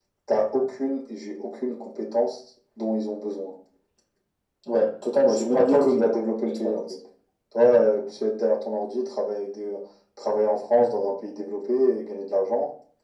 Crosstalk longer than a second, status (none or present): present